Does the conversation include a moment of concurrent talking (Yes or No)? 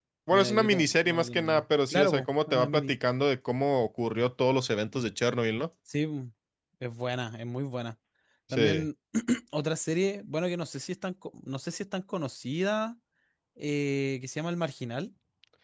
Yes